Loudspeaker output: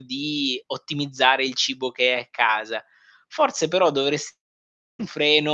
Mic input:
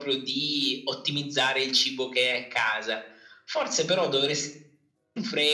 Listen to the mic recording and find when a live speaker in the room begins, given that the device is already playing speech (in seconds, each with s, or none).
none